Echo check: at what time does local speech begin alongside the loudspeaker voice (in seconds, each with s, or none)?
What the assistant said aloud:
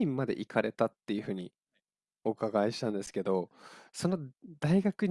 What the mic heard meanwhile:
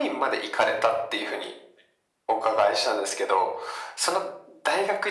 none